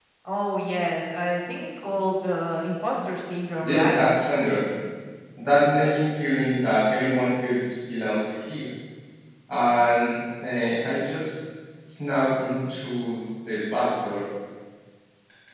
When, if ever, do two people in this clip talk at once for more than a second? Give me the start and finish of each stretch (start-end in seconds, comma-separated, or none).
none